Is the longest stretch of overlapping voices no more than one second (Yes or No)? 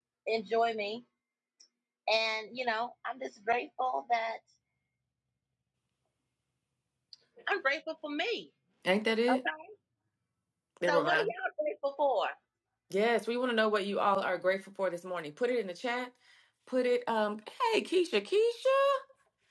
Yes